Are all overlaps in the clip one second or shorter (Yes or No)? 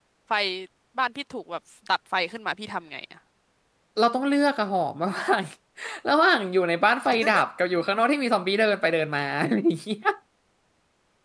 Yes